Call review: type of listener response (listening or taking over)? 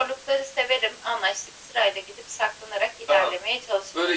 taking over